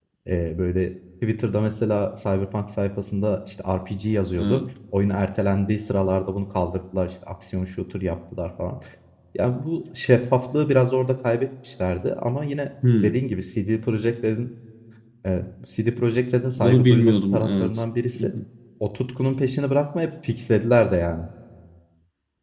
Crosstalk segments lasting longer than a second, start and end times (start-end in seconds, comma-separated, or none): 16.6-17.8